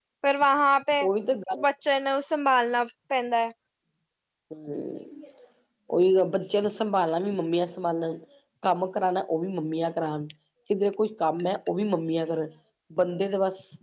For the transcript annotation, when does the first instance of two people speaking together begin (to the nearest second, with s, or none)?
none